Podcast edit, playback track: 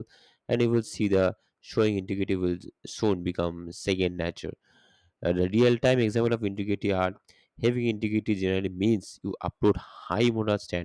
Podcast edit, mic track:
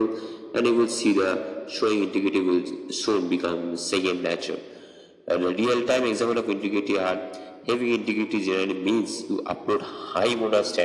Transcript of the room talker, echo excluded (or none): none